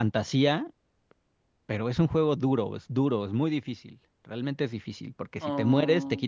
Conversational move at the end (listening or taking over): listening